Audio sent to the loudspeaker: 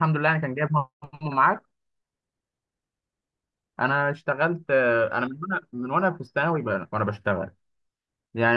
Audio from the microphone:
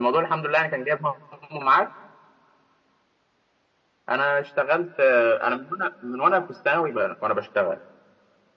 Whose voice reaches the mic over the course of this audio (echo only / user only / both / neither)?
echo only